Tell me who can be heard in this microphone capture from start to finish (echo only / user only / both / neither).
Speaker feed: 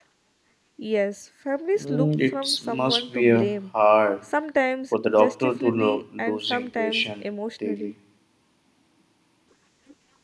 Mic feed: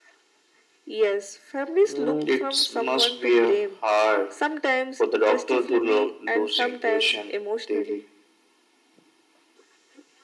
echo only